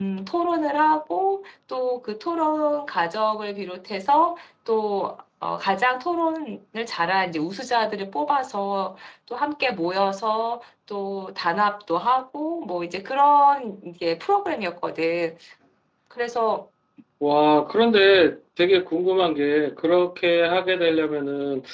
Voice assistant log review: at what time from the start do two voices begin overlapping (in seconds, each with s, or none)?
none